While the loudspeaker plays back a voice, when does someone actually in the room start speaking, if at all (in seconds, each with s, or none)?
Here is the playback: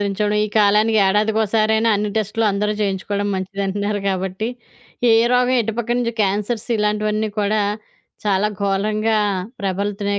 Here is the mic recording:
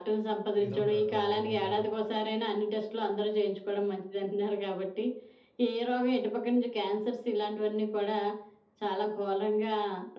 0.6 s